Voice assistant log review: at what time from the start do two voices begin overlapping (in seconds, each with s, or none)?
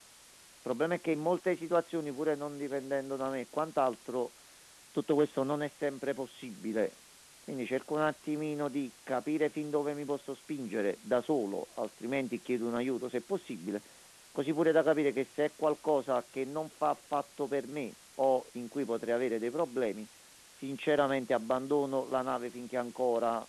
none